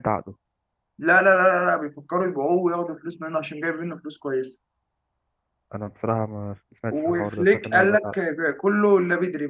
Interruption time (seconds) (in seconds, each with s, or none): 6.9 s